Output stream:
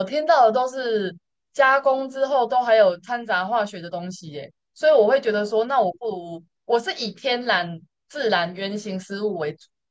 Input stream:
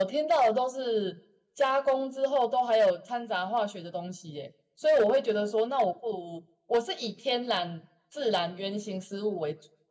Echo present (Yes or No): Yes